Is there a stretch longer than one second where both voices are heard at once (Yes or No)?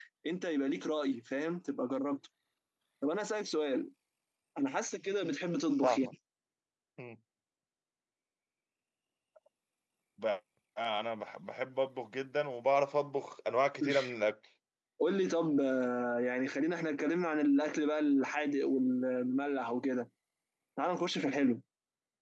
No